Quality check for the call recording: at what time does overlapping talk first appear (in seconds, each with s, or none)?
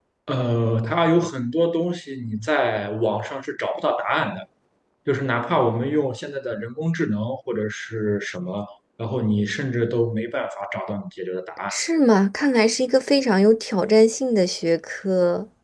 none